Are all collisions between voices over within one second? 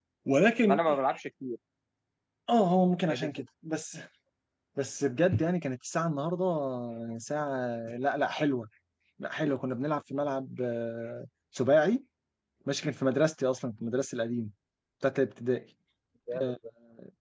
Yes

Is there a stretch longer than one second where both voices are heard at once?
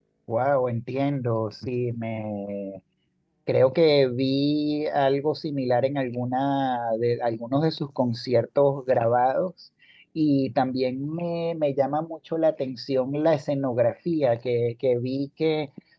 No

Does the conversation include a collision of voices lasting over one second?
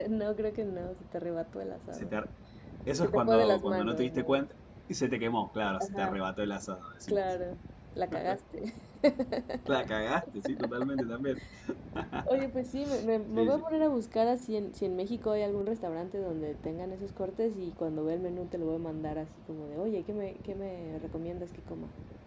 Yes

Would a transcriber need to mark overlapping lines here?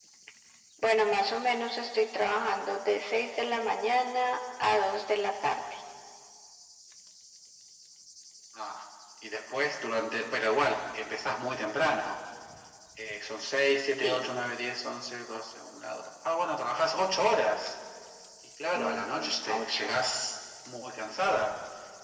Yes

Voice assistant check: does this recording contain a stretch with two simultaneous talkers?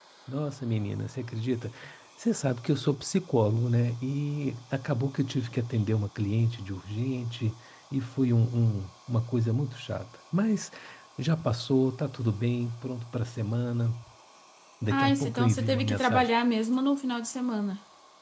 Yes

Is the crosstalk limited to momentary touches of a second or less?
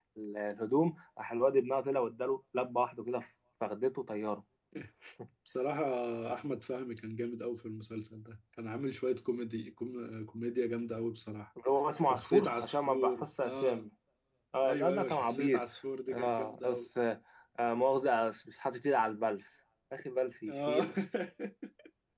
No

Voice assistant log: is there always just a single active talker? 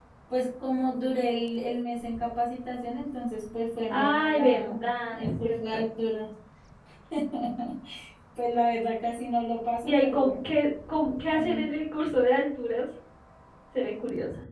No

